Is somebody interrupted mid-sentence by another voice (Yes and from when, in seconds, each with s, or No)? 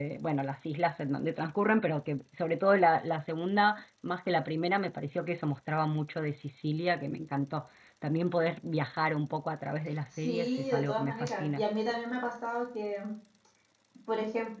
Yes, from 10.2 s